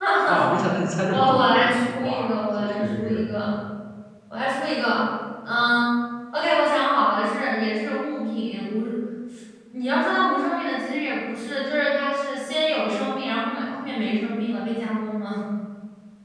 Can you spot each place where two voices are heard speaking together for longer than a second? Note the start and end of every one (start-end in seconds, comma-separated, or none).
1.1-3.3